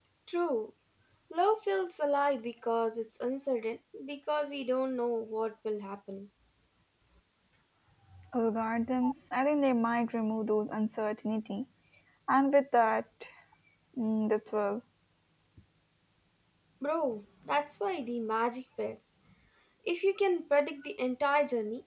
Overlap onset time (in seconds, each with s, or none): none